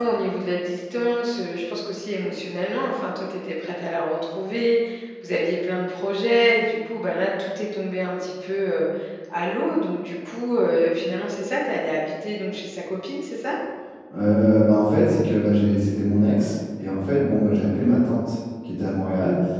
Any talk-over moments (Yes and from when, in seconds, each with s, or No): No